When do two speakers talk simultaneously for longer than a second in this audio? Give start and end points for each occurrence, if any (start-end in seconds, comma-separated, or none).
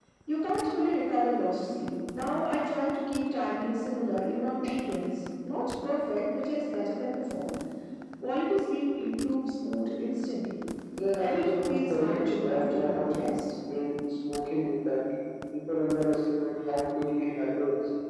11.2-13.2